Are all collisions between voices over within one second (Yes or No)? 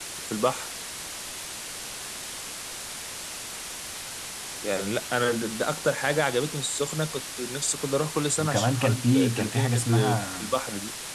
No